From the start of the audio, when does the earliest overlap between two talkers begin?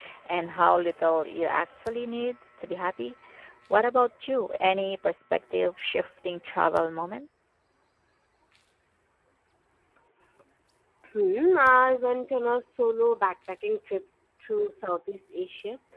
none

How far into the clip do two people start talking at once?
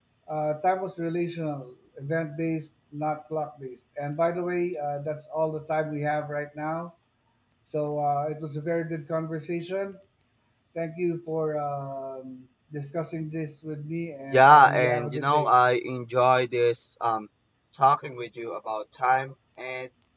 14.3 s

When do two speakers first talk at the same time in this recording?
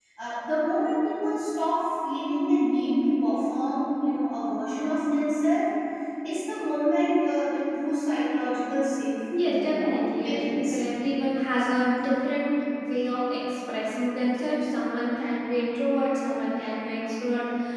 9.3 s

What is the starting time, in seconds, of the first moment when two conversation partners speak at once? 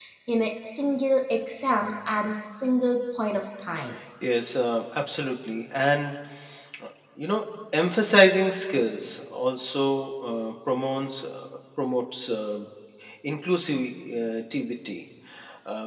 none

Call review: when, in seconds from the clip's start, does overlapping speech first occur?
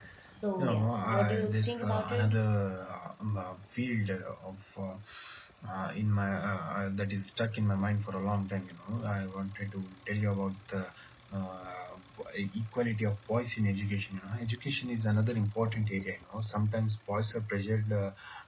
0.6 s

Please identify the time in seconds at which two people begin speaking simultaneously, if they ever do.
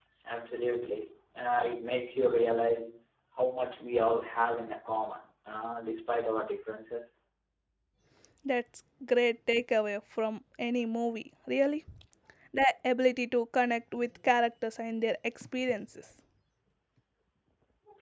none

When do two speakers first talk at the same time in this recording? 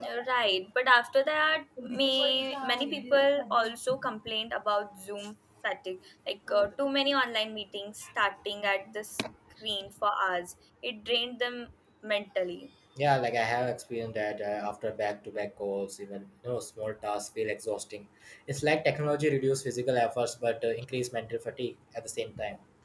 none

